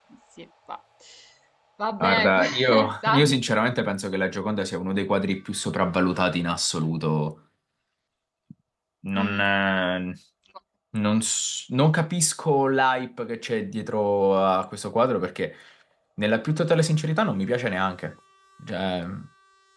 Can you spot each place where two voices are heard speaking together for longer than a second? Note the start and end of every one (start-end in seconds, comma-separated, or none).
2.0-3.2